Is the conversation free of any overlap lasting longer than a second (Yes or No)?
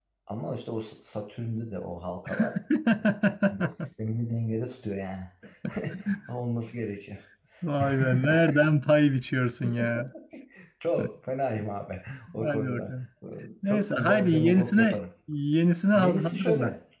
No